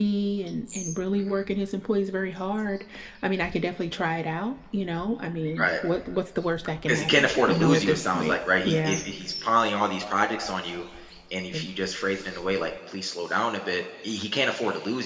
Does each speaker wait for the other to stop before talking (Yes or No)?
No